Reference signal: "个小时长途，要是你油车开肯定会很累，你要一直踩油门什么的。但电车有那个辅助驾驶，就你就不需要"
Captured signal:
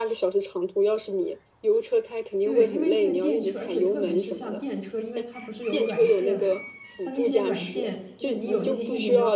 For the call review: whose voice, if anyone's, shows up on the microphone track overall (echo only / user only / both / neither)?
both